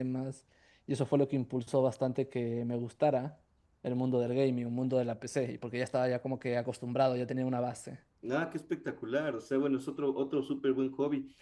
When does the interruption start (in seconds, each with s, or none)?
none